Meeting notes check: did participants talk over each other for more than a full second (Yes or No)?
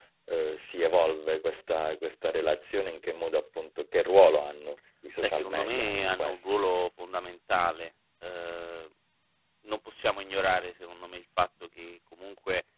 Yes